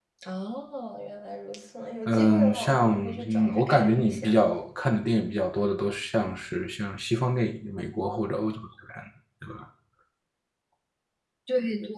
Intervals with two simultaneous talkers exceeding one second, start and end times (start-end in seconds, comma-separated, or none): 2.1-4.3